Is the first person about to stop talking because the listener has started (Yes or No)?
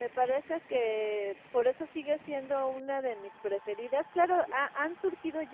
No